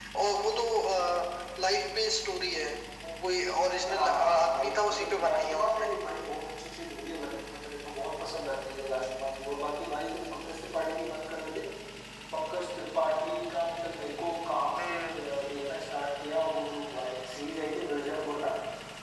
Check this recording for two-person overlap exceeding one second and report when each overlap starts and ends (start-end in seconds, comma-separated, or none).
3.9-5.9